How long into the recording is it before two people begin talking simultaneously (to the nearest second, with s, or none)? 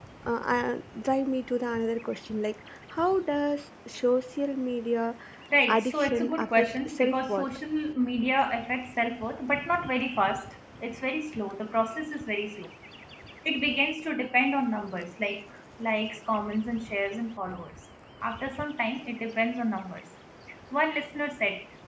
6 s